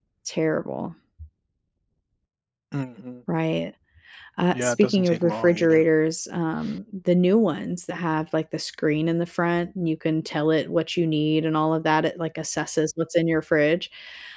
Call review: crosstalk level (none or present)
present